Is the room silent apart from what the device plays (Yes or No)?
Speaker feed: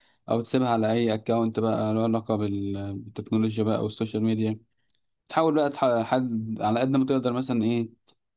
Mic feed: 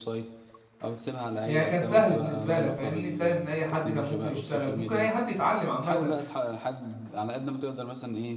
No